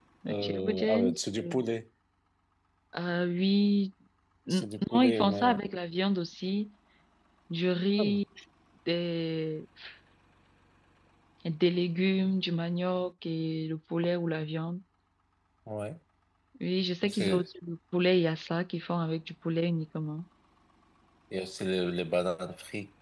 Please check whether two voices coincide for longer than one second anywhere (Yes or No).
Yes